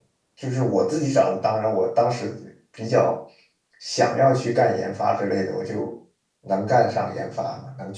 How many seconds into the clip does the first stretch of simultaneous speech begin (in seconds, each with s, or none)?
none